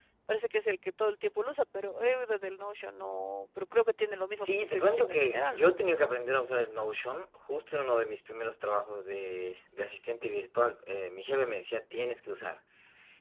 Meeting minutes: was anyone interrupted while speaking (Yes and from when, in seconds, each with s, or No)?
Yes, from 4.3 s